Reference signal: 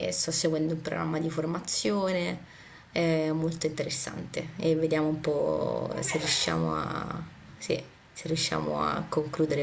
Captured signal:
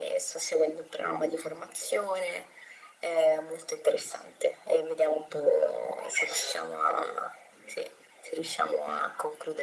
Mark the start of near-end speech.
none

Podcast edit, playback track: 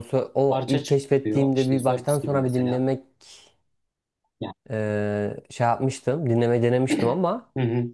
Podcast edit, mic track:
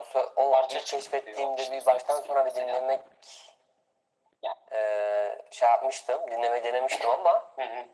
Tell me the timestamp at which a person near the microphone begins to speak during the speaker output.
none

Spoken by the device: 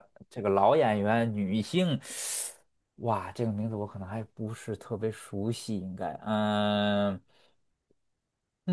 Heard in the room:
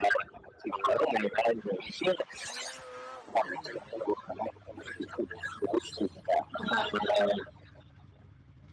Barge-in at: 7 s

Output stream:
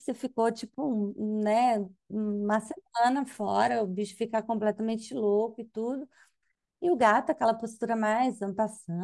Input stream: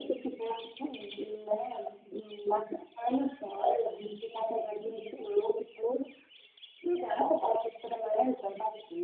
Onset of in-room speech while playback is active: none

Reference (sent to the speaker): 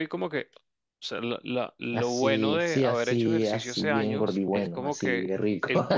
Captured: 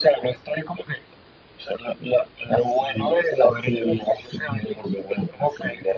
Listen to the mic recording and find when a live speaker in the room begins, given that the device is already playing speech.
none

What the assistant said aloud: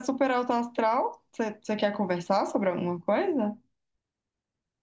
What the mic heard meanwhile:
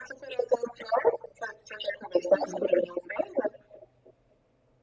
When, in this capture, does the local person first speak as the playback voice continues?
2 s

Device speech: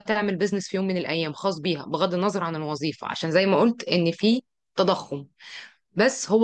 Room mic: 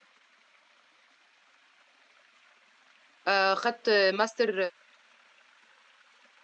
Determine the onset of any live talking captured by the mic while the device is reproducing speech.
3 s

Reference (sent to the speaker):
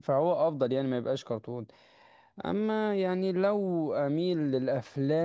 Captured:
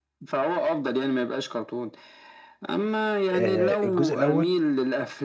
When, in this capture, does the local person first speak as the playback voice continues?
3 s

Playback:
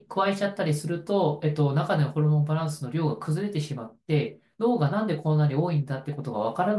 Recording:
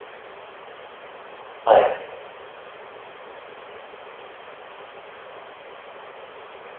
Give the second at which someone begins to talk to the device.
2 s

